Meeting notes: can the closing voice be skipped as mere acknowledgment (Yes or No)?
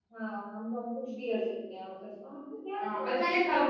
No